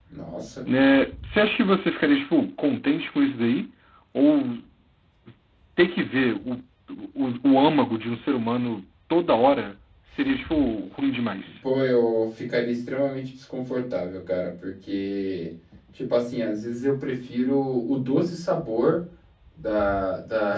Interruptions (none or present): none